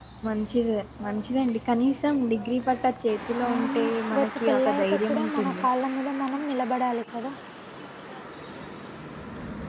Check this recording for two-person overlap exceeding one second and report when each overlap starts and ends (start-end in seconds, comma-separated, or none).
3.5-5.6